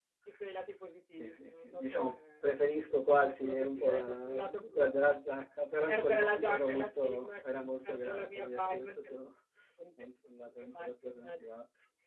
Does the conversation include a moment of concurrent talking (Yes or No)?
Yes